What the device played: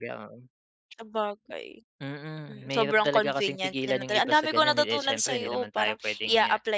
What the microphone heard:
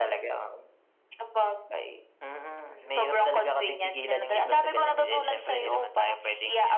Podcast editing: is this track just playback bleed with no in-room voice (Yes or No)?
Yes